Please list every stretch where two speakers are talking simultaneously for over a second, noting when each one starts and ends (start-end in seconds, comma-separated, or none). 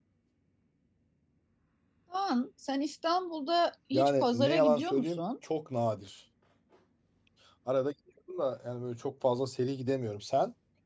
3.9-5.2